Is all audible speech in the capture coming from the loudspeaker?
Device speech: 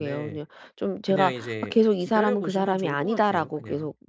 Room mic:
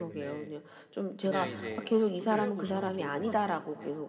No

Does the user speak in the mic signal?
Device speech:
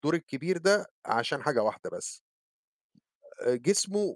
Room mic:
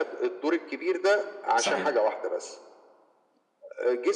Yes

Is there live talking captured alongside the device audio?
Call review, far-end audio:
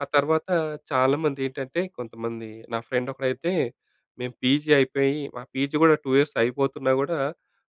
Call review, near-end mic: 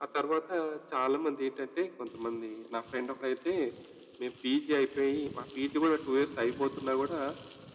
No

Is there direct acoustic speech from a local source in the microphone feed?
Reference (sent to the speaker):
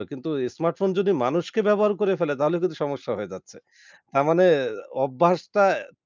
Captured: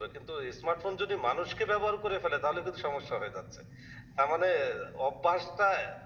No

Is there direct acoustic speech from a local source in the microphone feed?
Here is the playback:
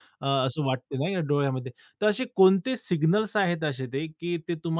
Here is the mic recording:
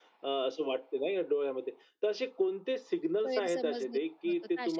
Yes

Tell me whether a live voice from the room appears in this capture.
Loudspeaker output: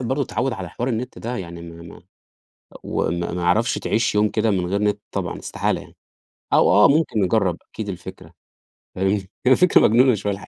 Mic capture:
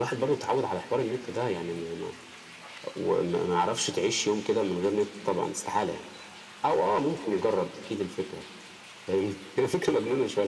No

